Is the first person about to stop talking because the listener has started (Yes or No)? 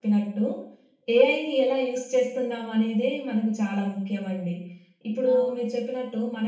No